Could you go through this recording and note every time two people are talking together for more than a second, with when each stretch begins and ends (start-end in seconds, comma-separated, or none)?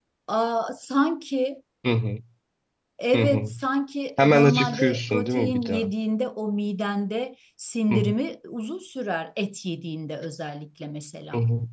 4.2-5.9